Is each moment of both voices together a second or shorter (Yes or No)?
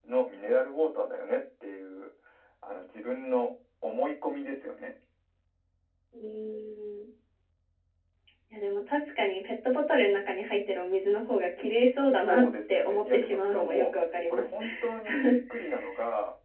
No